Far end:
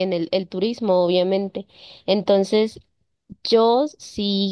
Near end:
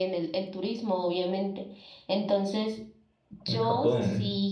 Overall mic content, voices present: both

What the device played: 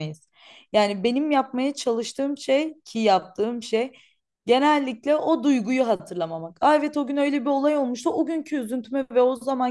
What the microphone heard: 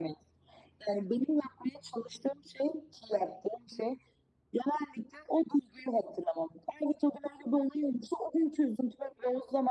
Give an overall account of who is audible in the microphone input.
echo only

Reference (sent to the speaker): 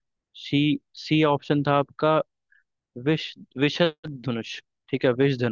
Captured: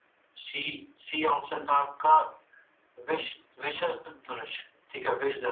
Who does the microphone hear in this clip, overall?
echo only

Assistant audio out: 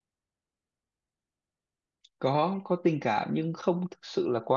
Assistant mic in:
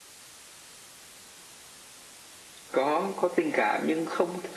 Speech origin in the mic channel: echo only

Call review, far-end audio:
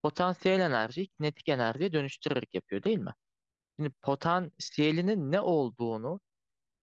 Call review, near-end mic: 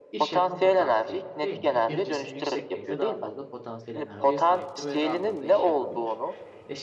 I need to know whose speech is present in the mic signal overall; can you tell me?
both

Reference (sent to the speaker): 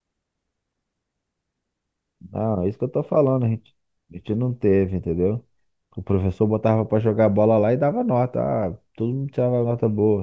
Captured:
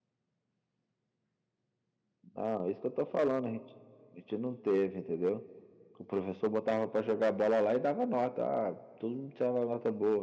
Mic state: echo only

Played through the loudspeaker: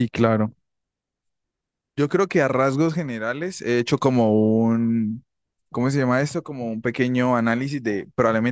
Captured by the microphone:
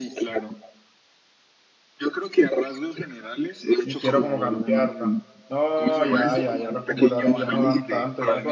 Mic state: both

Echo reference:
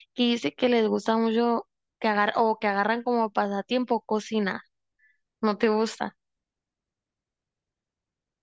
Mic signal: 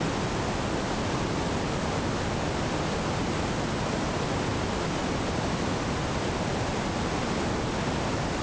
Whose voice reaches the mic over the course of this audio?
neither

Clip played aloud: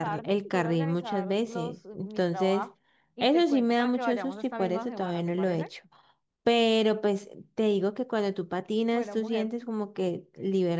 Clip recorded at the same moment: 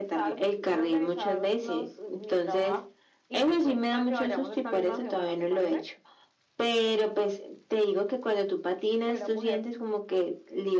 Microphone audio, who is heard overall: echo only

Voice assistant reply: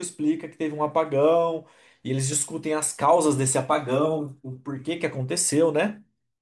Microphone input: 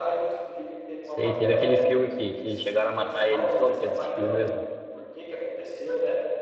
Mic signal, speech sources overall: both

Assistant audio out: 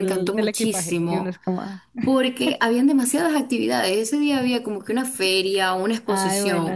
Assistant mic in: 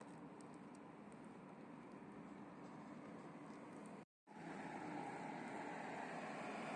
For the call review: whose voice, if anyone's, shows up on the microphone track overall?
neither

